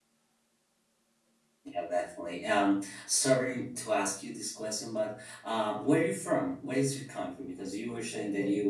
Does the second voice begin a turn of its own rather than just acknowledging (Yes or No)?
No